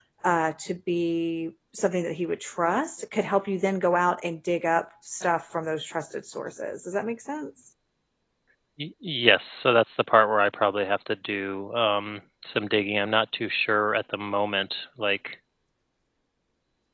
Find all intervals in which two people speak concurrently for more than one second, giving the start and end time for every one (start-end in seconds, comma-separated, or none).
none